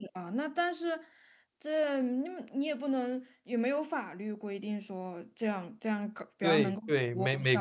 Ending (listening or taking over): taking over